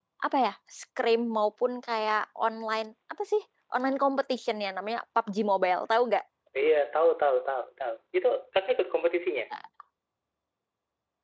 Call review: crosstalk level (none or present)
none